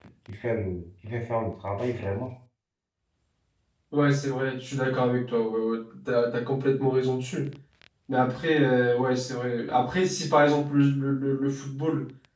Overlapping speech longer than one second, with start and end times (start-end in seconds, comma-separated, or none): none